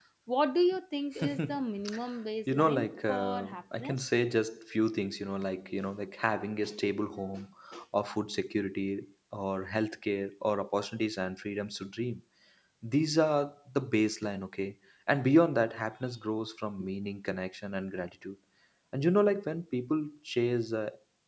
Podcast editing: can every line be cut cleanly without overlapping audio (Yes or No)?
No